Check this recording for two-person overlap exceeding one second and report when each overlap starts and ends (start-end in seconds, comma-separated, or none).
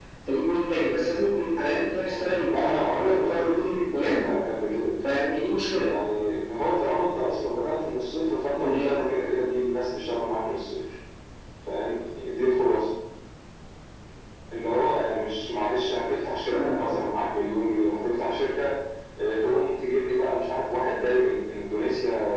2.0-4.3